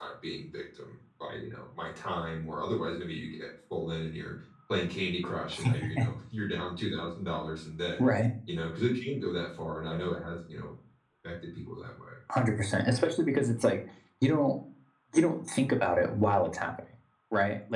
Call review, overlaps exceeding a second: none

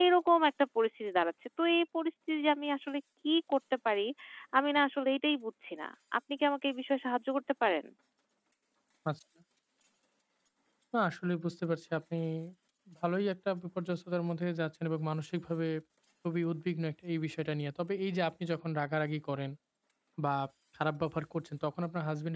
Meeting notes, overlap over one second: none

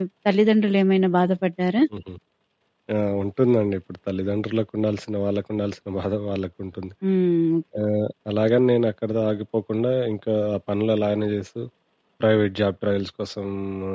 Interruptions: none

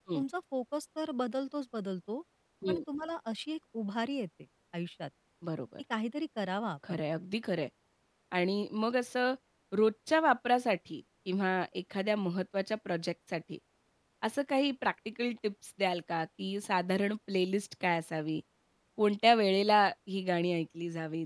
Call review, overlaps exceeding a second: none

